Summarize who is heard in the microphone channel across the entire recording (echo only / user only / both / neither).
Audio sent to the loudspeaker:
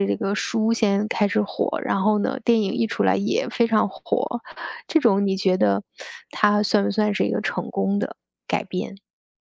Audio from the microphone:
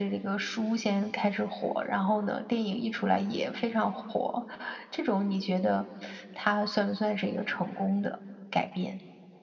echo only